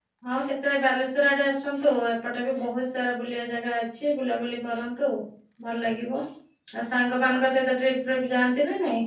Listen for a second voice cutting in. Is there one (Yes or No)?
No